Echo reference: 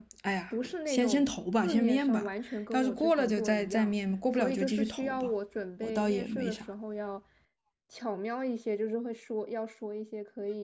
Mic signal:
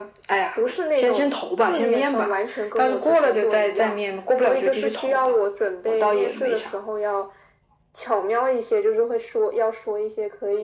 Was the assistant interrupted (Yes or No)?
No